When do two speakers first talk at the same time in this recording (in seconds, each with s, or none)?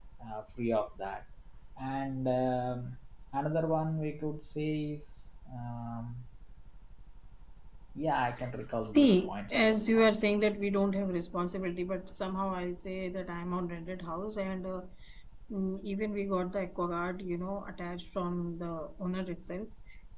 8.8 s